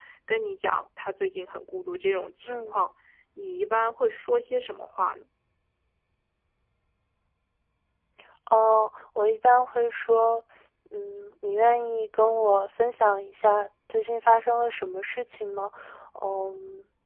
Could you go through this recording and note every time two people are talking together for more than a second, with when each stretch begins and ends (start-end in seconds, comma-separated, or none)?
none